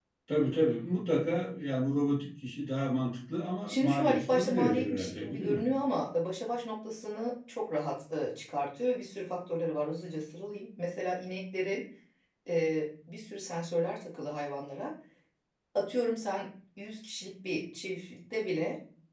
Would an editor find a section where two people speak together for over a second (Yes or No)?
Yes